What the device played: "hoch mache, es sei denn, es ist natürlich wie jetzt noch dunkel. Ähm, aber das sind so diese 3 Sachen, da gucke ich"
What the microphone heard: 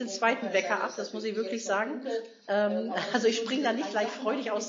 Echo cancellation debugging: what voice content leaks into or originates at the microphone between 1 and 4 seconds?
both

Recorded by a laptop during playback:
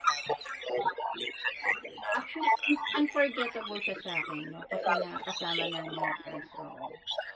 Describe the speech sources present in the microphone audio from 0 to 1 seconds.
echo only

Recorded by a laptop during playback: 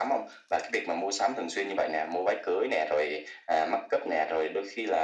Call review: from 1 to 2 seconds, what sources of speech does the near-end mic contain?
echo only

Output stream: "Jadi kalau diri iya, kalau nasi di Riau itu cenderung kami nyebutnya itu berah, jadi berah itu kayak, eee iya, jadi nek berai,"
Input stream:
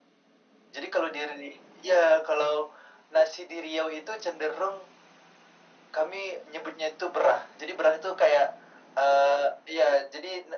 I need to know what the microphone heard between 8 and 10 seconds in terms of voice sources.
echo only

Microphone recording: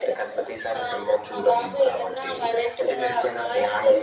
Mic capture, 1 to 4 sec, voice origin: echo only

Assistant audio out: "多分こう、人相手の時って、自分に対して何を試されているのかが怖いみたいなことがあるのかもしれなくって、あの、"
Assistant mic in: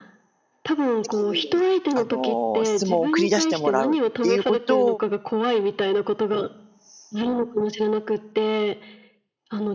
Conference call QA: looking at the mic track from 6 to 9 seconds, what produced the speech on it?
echo only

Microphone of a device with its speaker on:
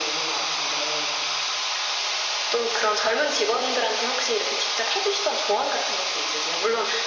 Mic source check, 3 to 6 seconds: echo only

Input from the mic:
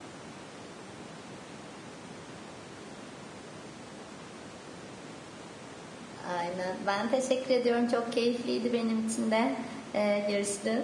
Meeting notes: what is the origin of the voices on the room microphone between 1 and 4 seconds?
neither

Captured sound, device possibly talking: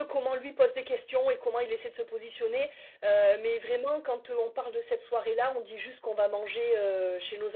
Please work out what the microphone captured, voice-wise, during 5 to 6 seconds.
echo only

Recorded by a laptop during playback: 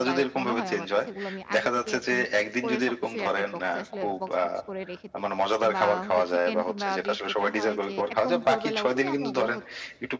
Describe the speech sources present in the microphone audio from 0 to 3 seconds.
both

